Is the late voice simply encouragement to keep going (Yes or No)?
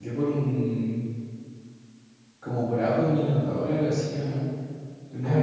No